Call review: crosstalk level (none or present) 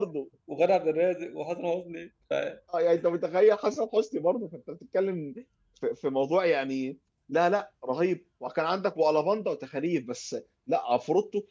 none